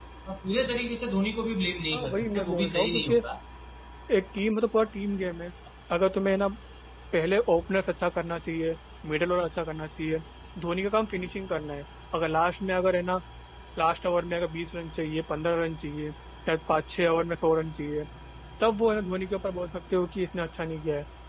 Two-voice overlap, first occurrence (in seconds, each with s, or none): 1.9 s